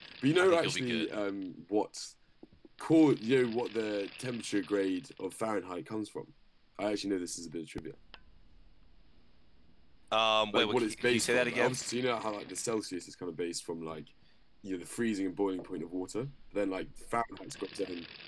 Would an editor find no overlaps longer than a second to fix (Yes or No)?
No